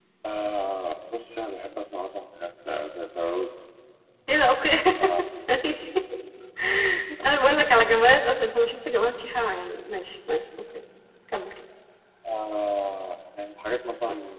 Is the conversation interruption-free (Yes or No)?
Yes